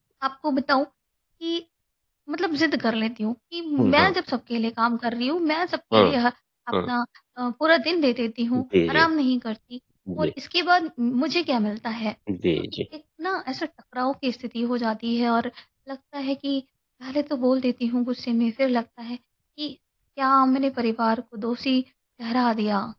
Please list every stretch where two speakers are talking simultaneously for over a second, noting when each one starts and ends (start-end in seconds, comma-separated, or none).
none